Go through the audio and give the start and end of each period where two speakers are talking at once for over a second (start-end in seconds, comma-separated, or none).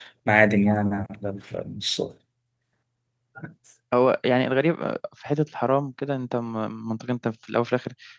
none